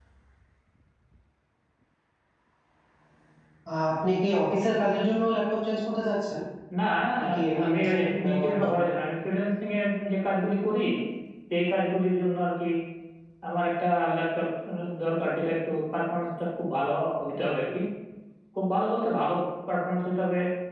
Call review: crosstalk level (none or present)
present